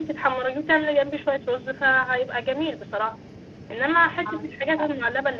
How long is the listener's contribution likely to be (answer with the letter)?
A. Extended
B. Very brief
B